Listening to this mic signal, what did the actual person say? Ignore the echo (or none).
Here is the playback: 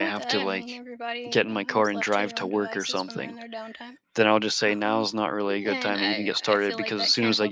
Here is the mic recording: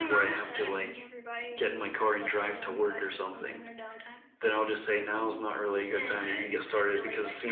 none